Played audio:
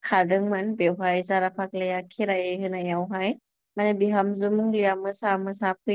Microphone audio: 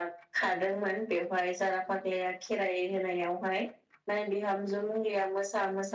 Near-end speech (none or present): none